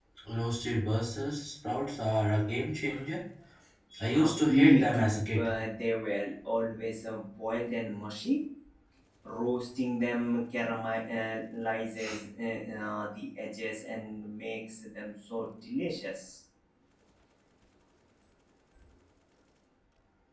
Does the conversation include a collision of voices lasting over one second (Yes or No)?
Yes